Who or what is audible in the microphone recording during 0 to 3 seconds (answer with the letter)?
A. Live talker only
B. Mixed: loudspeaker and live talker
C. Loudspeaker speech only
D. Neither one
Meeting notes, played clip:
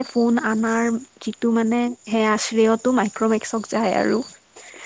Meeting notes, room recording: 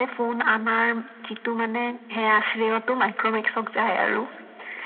C